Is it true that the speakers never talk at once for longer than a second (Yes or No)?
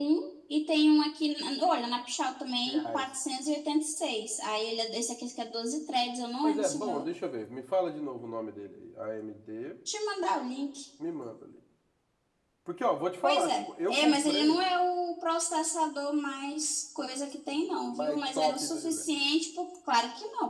No